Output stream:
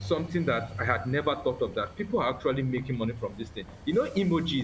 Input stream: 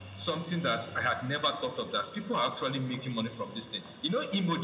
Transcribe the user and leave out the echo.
none

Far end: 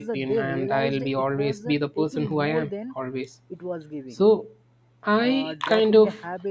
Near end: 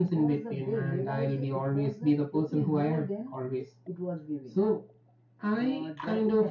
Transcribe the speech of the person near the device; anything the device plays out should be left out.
none

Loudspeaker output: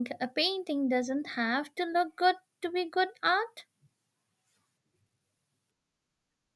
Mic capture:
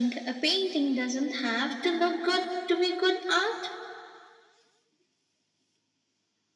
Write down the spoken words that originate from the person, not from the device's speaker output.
none

